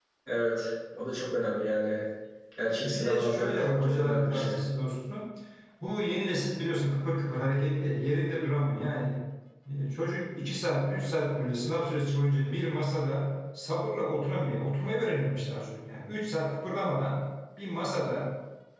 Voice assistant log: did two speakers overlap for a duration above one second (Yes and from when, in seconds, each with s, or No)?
Yes, from 2.8 s